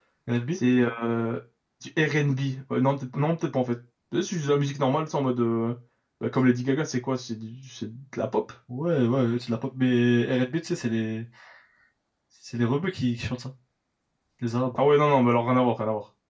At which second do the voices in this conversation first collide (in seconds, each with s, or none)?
none